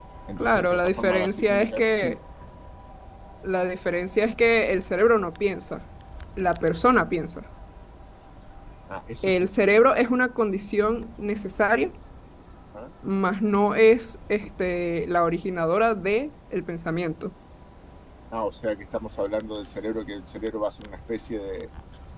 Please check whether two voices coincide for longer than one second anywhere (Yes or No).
Yes